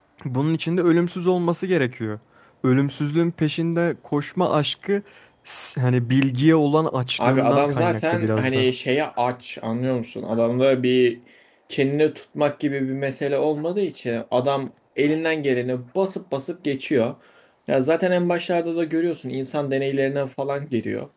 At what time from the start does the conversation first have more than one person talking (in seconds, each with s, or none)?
7.2 s